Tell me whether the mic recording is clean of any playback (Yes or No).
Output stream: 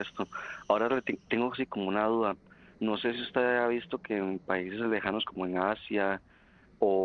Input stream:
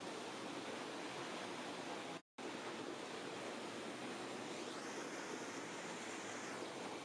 Yes